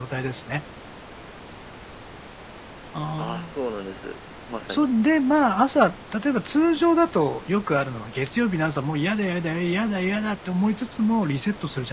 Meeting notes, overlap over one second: none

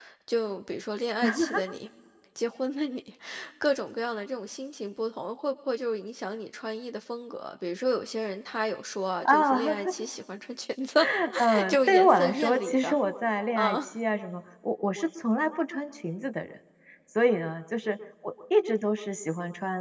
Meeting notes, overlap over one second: present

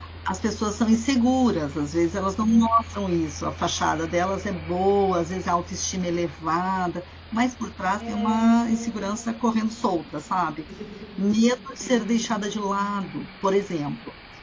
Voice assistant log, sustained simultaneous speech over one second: none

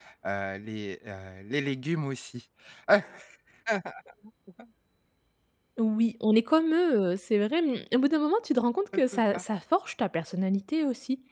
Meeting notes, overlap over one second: none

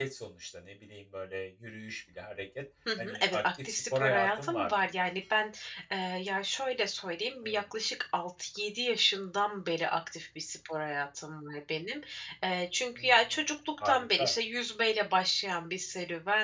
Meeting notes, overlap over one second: present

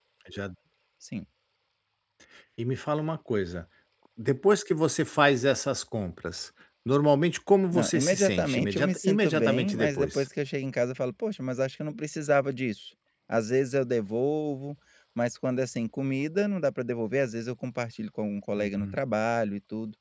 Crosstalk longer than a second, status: present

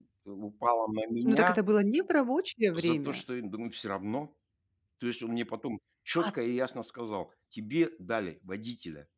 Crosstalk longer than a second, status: none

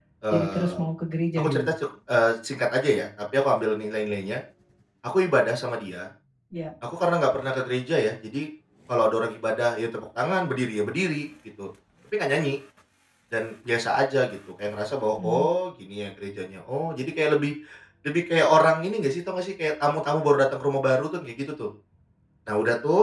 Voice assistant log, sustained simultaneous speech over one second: none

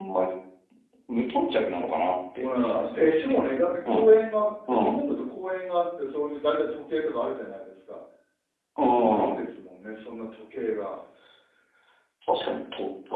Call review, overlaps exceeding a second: none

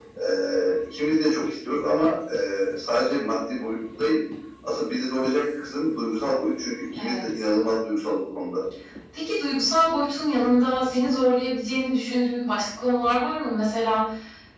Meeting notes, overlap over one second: none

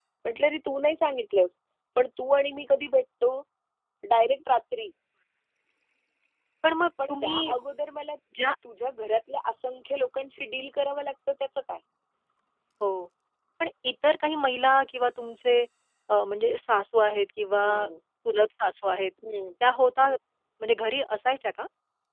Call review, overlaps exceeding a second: none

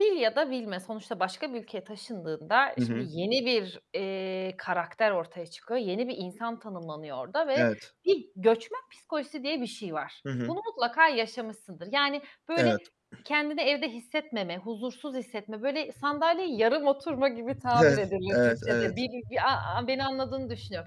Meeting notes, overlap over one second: present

